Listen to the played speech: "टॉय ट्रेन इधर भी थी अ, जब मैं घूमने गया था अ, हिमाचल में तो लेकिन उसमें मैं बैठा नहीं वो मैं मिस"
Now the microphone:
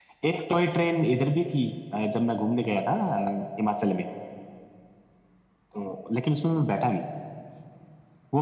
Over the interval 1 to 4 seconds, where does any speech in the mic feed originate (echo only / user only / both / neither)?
echo only